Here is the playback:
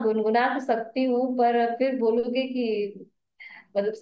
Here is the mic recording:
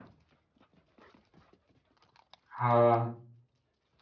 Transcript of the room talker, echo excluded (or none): हाँ